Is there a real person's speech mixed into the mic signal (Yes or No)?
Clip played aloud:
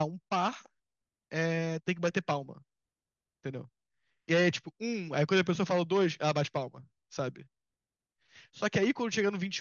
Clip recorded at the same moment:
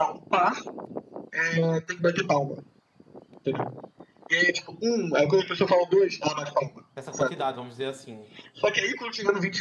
Yes